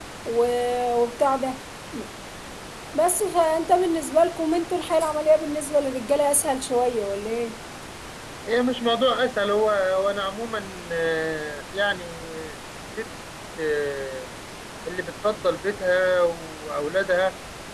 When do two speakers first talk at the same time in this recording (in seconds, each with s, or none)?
none